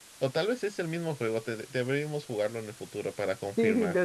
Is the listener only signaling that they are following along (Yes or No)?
No